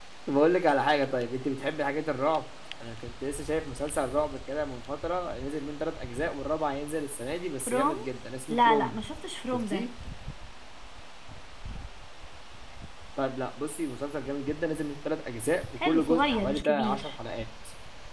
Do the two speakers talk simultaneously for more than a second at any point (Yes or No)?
Yes